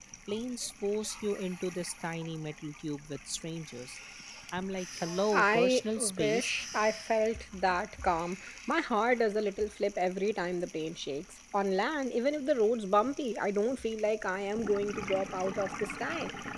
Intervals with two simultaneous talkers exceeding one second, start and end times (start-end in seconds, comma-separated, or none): 5.3-6.5